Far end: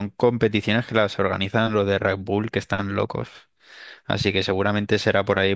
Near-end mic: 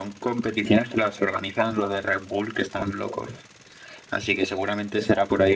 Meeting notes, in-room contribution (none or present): none